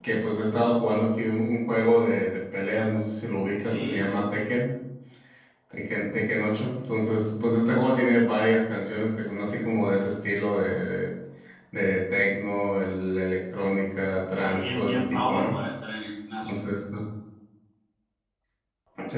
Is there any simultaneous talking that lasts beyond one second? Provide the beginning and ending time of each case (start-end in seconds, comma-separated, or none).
14.3-15.6